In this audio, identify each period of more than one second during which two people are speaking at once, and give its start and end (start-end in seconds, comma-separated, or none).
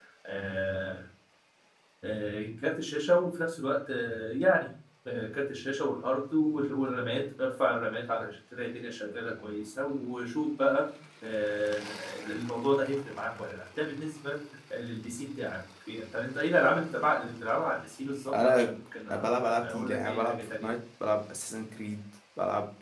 19.1-20.8